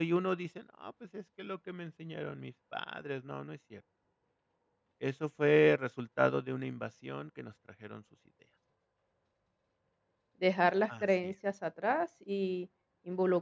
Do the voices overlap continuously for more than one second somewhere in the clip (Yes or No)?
No